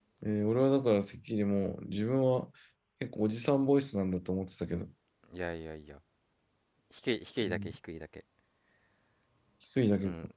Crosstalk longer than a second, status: none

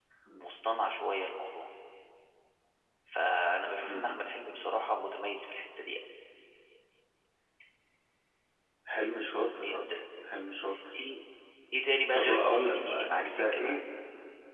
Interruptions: present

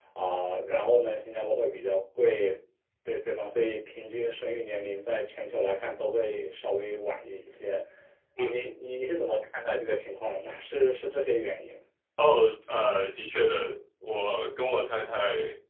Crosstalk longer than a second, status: none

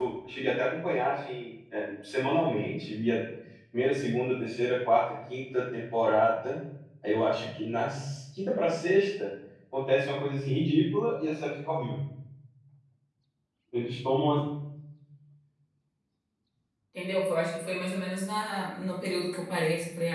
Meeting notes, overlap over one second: none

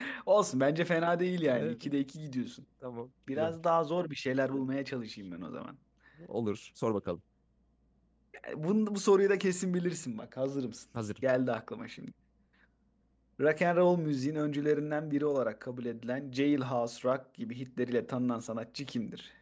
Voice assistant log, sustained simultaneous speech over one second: none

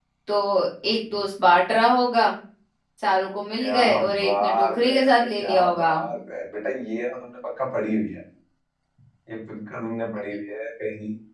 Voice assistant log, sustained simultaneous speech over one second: present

